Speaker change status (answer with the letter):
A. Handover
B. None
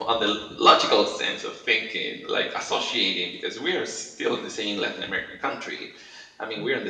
B